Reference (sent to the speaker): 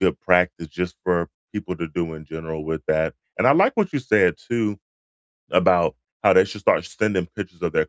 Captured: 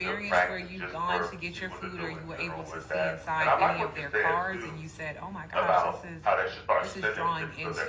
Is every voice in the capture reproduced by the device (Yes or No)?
No